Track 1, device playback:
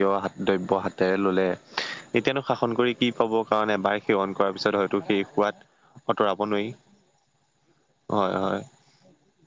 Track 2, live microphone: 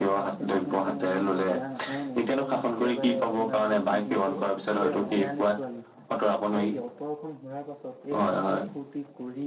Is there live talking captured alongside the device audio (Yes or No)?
Yes